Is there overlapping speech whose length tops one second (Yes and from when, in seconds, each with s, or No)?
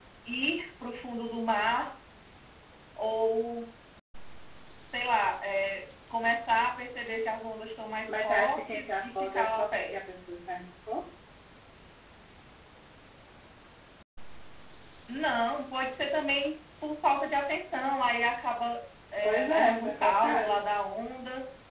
Yes, from 8.1 s